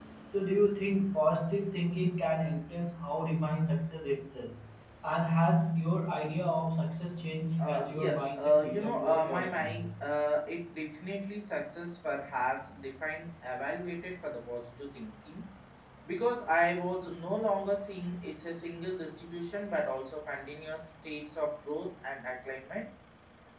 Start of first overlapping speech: 7.6 s

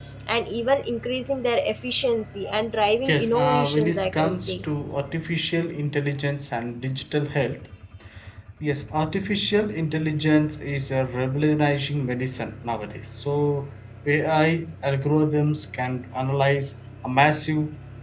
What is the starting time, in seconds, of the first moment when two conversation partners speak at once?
3.0 s

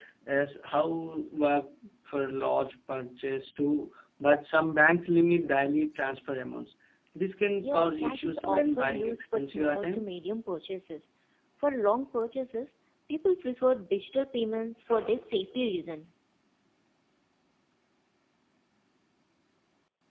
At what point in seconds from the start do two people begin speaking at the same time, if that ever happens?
7.6 s

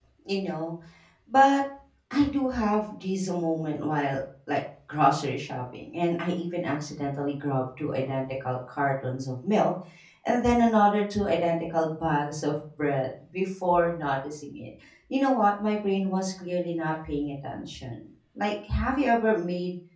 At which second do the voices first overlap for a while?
none

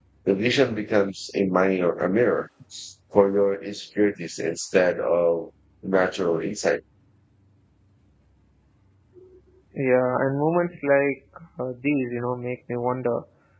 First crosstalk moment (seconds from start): none

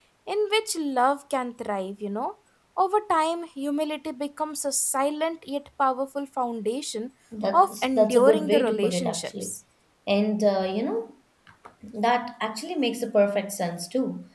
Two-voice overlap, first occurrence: 7.5 s

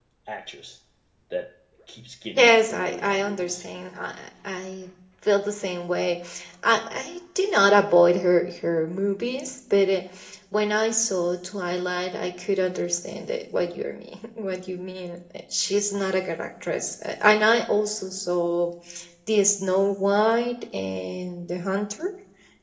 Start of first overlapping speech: 2.4 s

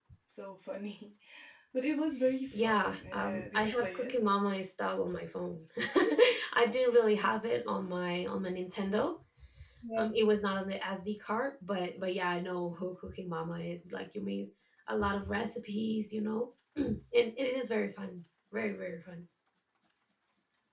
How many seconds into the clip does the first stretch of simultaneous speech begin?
2.5 s

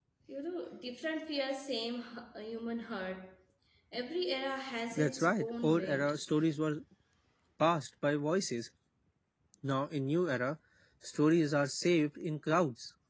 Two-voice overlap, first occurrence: 4.9 s

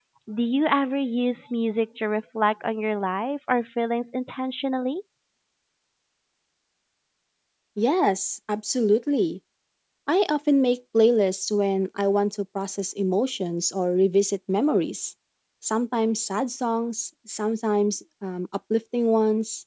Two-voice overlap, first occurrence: none

